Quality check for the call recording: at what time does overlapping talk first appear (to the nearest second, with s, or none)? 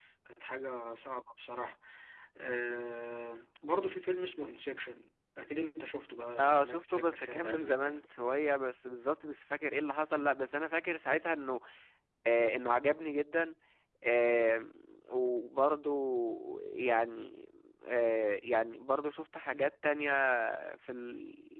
6 s